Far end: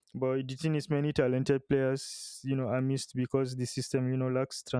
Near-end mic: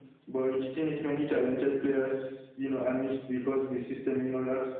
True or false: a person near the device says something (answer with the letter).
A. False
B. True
A